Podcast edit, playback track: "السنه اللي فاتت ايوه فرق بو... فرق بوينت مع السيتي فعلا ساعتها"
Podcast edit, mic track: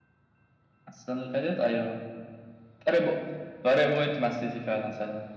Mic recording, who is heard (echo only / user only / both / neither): echo only